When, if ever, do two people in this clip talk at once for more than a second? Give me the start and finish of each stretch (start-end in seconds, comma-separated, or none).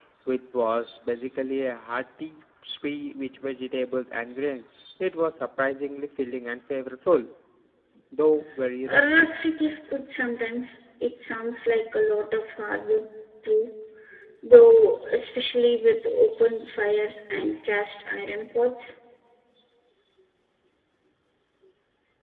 none